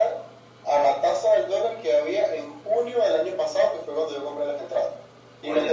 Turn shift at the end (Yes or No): No